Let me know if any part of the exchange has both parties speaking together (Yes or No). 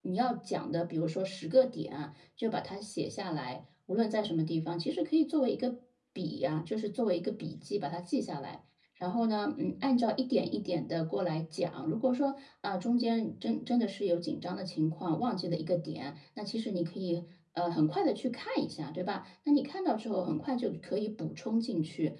No